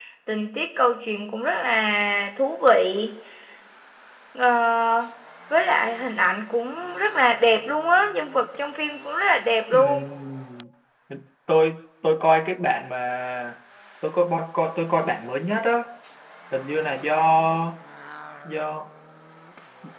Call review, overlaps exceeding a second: none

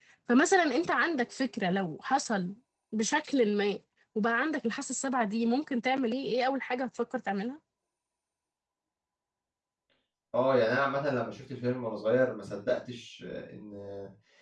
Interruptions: none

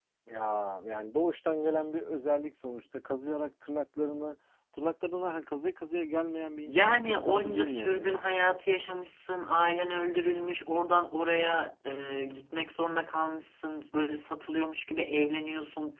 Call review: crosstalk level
present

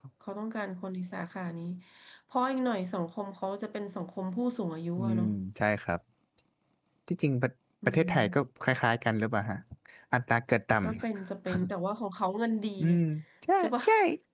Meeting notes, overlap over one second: none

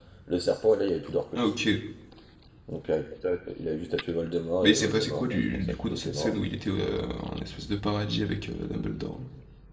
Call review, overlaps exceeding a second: present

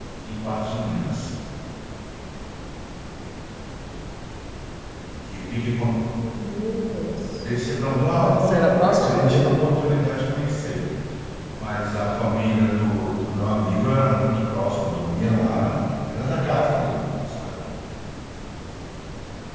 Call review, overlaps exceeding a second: present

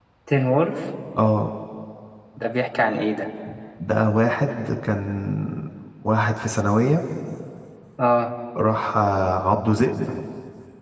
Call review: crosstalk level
none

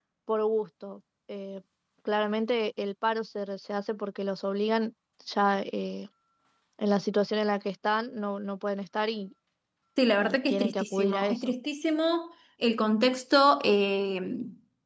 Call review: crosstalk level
present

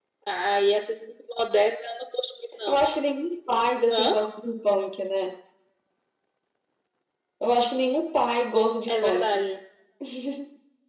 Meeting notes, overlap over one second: none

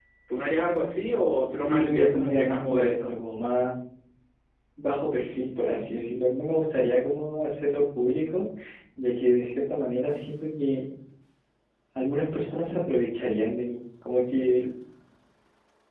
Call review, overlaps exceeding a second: present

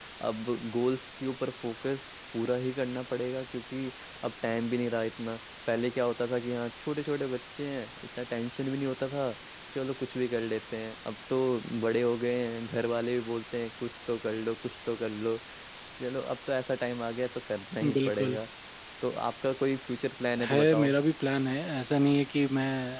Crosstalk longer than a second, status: none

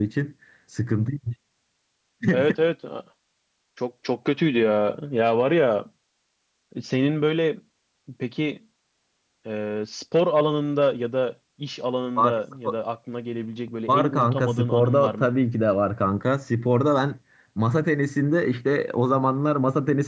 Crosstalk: present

